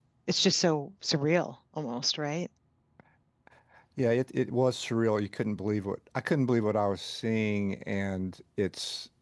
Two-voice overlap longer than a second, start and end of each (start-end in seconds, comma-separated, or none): none